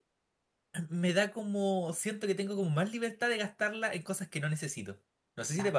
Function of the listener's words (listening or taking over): taking over